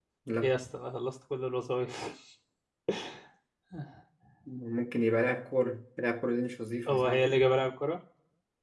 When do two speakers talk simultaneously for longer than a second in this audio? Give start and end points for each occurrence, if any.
none

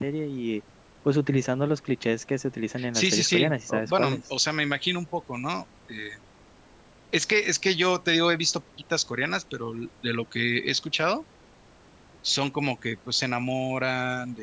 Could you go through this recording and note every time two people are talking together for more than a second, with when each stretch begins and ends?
2.9-4.2

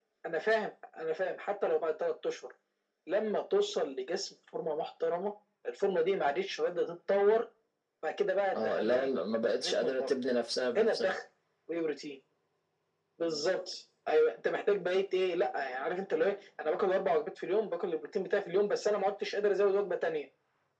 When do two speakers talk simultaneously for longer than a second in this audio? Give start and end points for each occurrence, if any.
none

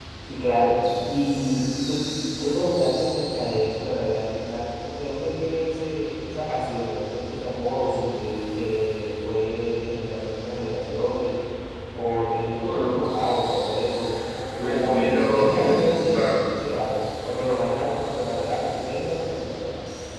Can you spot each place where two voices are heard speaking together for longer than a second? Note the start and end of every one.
14.6-16.3

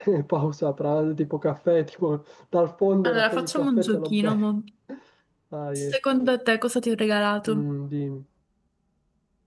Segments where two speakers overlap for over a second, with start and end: 3.0-4.4

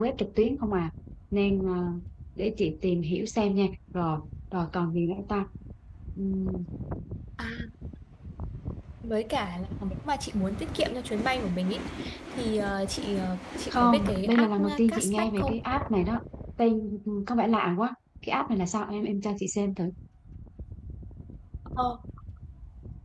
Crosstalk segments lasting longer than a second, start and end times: 13.7-15.6

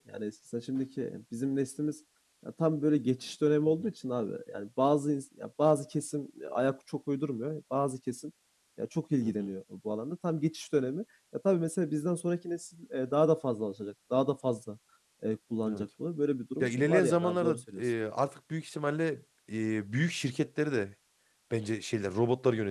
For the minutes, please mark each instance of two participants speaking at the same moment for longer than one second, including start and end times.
16.6-17.9

